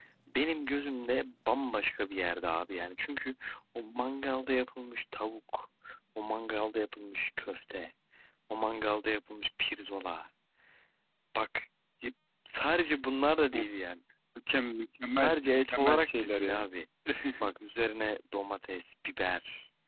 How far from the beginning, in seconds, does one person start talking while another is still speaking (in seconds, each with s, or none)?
15.1 s